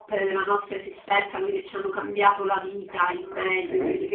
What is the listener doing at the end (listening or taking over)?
listening